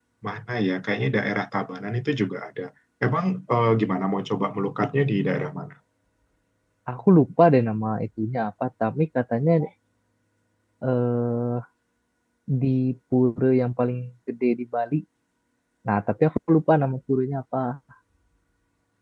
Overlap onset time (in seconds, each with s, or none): none